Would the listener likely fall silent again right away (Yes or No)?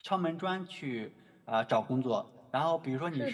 Yes